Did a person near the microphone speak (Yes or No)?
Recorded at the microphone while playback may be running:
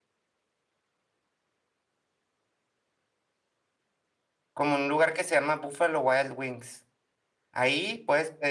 Yes